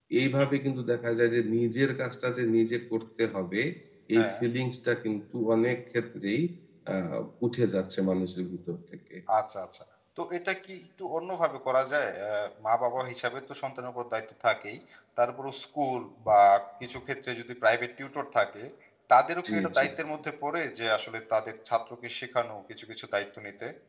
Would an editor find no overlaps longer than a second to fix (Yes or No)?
Yes